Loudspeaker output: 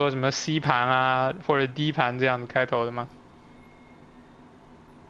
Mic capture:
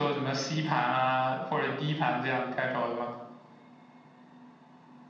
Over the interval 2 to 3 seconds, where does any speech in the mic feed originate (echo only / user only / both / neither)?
echo only